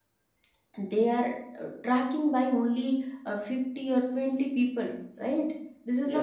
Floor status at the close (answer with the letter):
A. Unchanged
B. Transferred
A